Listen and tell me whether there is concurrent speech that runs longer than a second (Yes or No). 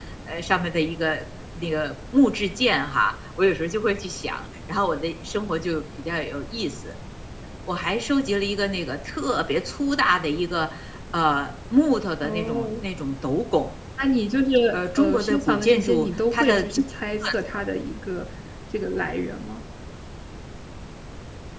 Yes